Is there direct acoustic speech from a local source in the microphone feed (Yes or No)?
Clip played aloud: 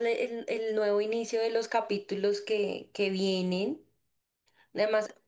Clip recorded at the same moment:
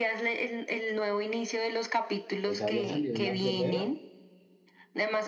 Yes